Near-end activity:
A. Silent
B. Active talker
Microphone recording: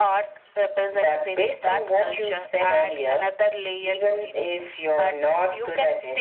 A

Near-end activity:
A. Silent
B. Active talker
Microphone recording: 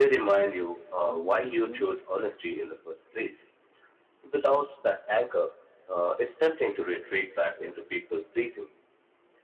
B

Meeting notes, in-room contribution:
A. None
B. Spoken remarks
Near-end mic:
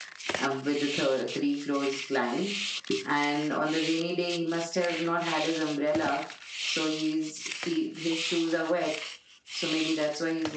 A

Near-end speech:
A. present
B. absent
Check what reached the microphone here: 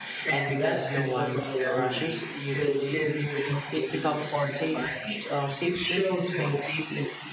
A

